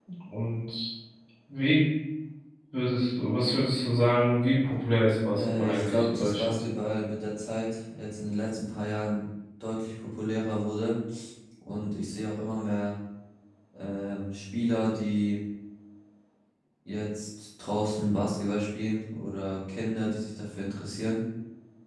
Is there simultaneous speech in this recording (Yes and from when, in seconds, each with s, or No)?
Yes, from 5.3 s